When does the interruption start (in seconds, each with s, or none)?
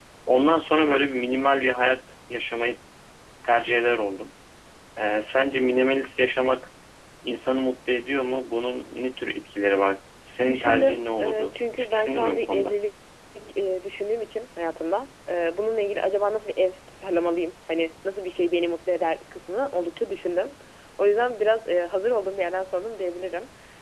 10.4 s